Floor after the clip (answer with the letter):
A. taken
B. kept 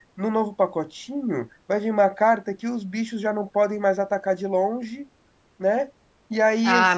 A